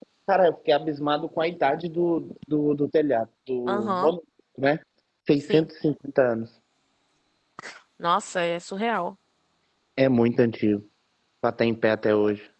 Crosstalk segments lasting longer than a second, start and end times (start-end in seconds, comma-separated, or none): none